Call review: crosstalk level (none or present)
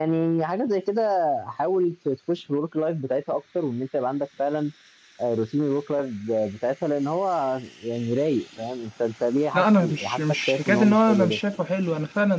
present